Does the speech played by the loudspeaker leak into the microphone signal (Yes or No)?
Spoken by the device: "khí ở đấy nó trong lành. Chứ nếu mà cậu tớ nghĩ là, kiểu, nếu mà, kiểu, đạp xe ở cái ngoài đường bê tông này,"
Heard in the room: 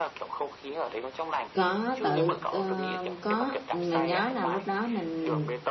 Yes